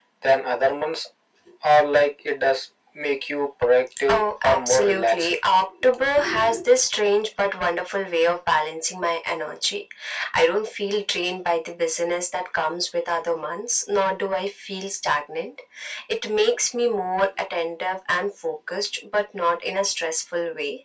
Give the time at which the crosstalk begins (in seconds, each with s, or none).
4.1 s